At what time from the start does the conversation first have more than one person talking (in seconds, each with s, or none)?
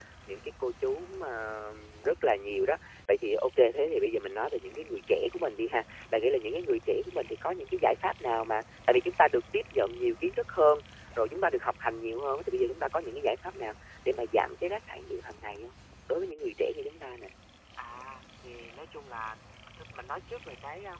none